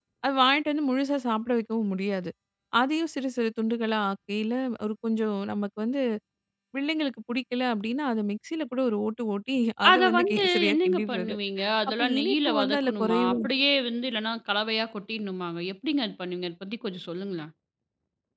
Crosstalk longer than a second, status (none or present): present